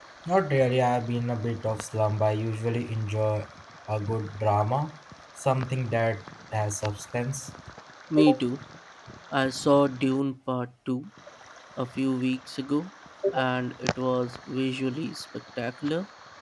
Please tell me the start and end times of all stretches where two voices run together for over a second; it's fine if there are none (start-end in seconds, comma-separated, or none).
none